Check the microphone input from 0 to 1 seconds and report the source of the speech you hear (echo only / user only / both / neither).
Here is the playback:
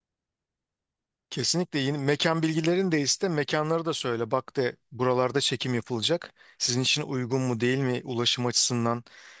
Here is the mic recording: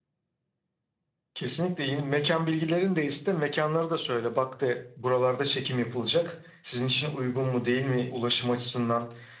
neither